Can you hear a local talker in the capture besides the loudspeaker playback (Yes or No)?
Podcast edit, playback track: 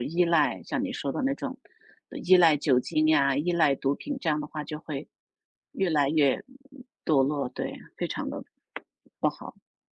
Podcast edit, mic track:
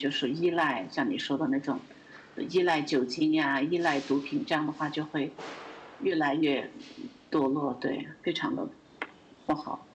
No